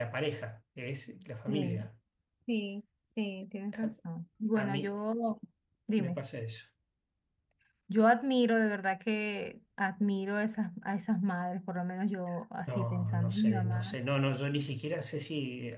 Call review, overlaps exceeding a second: present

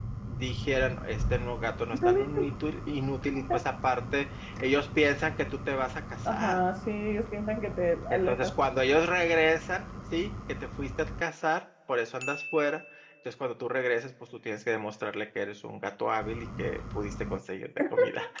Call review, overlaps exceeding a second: none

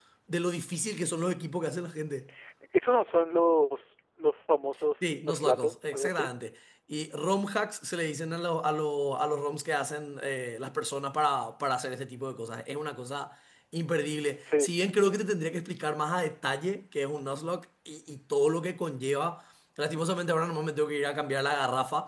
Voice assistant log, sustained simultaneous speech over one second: present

